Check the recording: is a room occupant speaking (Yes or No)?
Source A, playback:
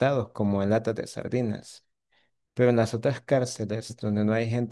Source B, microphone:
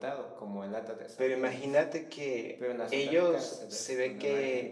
Yes